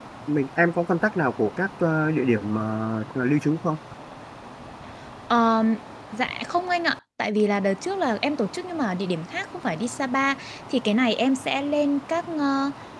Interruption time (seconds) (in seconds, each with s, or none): none